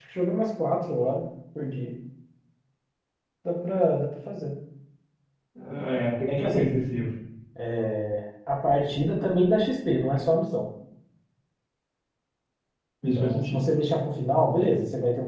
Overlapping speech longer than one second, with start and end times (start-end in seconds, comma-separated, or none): none